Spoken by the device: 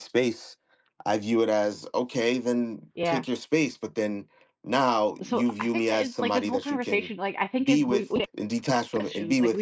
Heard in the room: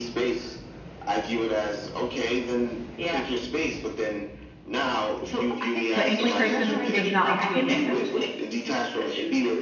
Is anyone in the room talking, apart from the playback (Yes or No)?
Yes